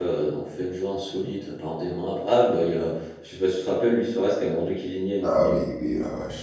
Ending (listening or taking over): taking over